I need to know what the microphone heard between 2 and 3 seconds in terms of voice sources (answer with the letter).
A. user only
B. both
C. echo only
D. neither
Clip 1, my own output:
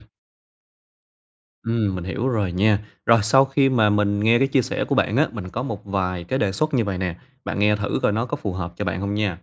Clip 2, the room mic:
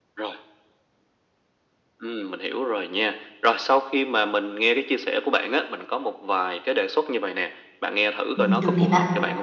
C